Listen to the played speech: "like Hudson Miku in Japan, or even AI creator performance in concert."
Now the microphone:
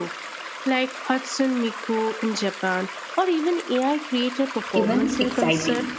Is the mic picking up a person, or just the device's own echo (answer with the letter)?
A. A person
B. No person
A